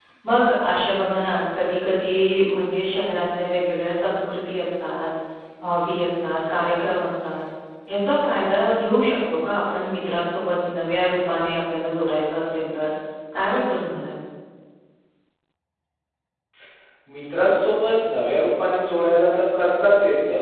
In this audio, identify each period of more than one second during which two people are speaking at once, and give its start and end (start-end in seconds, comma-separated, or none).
none